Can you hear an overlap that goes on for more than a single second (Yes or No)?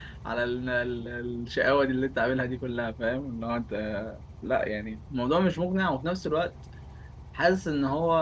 No